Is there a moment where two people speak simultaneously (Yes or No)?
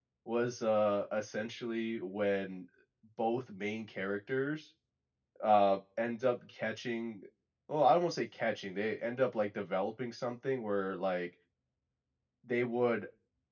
No